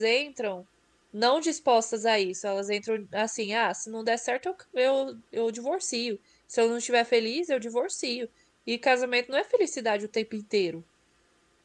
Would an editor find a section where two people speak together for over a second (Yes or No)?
No